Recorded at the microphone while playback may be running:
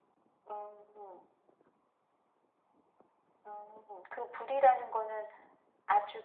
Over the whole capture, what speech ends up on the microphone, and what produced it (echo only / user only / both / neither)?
echo only